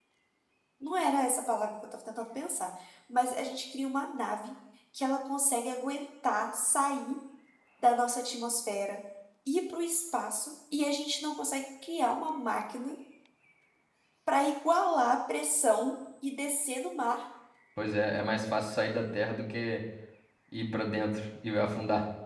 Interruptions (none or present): none